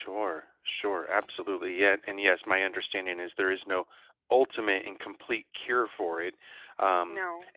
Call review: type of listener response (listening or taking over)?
listening